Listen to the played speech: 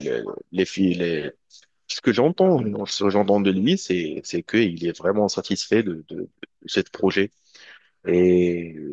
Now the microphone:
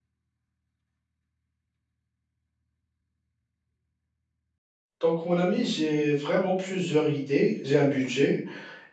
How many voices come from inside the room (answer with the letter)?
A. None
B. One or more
B